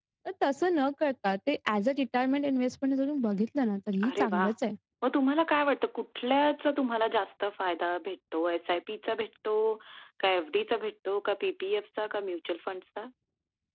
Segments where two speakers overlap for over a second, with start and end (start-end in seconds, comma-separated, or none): none